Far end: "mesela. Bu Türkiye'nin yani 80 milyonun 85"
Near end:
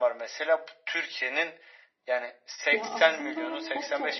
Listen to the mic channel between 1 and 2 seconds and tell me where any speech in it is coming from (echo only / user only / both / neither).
echo only